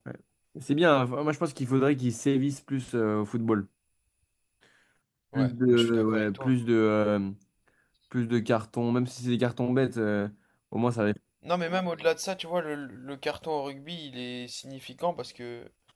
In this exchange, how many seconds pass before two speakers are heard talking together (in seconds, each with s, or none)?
5.3 s